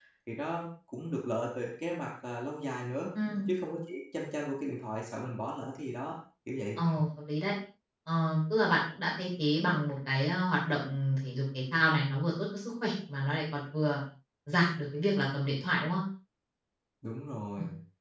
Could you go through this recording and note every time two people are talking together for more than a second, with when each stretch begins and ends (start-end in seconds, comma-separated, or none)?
none